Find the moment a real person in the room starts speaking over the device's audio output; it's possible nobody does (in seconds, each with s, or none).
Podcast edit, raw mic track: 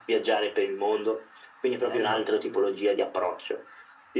1.8 s